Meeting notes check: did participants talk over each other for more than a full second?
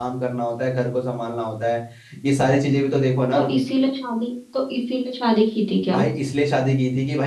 No

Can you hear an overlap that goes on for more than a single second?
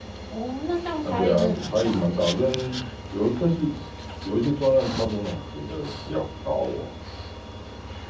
Yes, from 1.0 s

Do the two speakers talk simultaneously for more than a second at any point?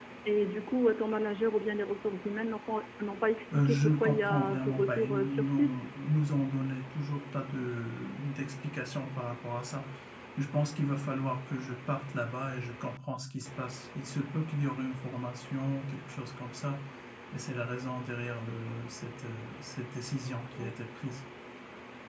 Yes, from 3.5 s

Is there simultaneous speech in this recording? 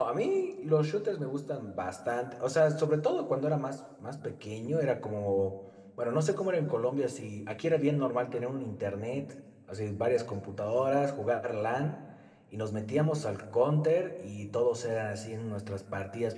No

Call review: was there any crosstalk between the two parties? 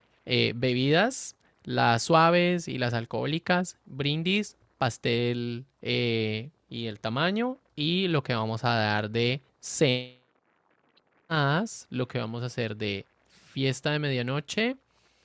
No

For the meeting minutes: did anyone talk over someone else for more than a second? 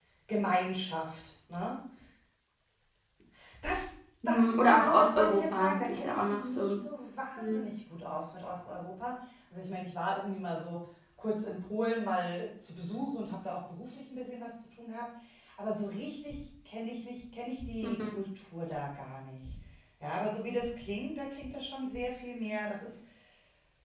Yes, from 4.2 s

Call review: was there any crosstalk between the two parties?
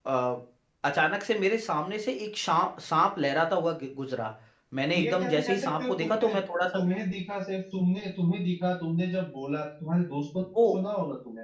Yes, from 5.0 s

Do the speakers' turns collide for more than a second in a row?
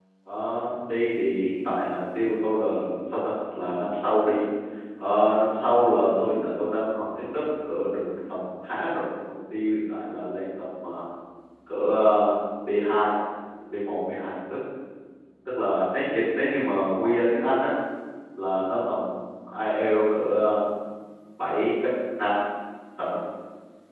No

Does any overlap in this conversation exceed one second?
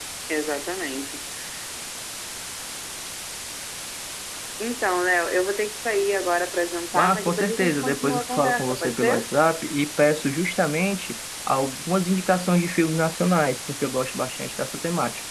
Yes, from 6.9 s

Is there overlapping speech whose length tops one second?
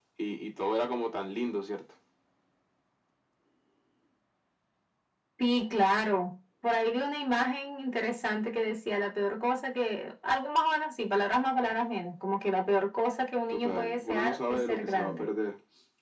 Yes, from 13.5 s

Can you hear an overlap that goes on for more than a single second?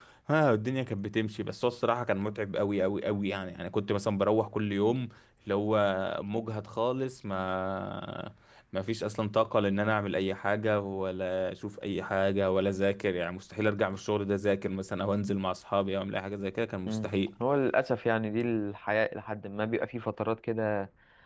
No

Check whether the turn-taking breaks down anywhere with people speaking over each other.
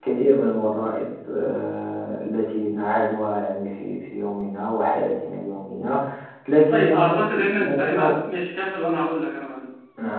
Yes, from 6.7 s

